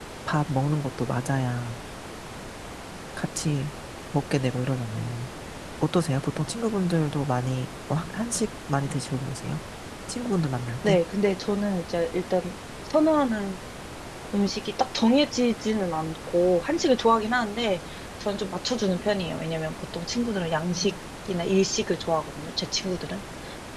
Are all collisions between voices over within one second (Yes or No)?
Yes